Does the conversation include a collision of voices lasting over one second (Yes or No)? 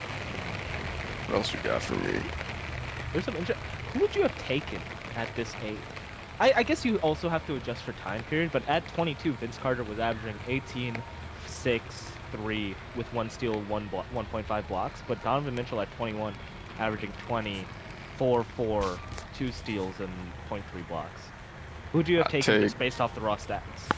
No